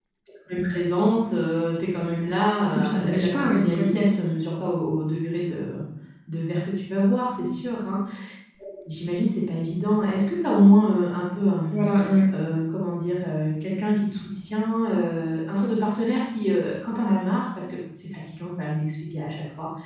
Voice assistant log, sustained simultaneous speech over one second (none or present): present